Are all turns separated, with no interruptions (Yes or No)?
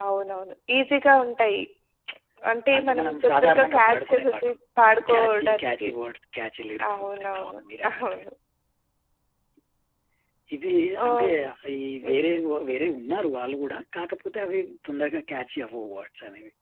No